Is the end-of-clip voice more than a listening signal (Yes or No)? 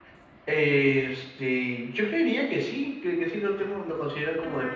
Yes